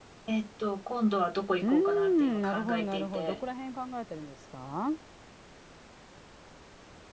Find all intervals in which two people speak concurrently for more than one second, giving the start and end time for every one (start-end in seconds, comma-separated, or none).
1.6-3.4